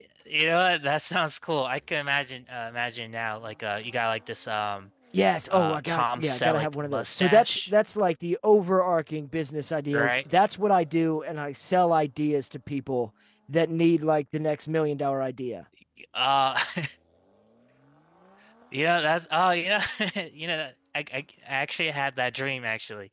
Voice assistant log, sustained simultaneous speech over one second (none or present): present